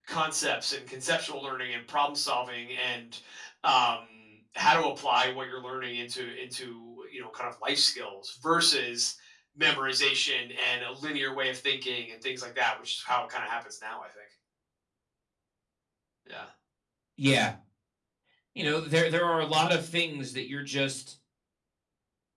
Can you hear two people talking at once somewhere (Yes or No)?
No